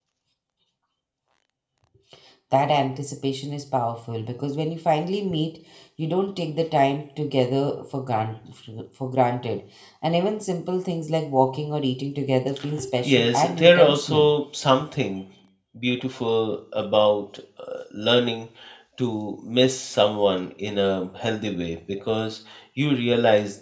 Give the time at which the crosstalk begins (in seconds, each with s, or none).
13.1 s